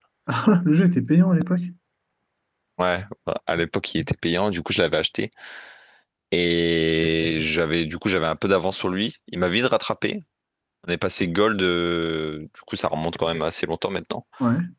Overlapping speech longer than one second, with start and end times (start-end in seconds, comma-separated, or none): none